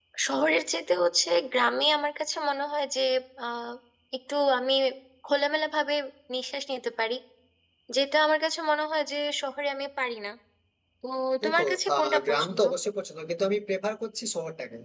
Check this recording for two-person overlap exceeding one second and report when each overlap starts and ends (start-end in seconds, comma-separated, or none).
11.4-12.6